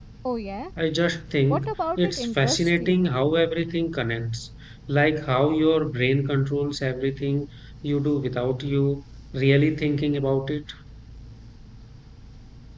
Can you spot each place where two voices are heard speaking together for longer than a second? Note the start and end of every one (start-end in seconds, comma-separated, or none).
1.5-3.0